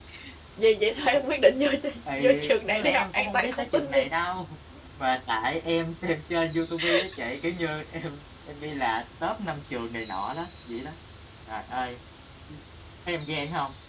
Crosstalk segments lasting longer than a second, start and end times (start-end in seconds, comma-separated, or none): 2.2-4.1